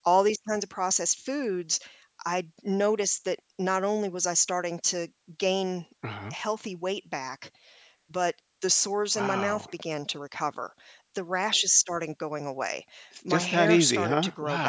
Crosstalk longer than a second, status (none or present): present